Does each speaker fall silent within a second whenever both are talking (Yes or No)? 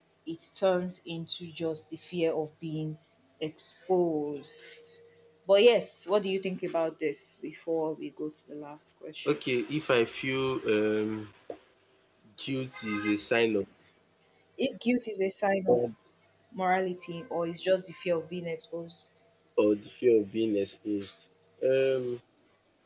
Yes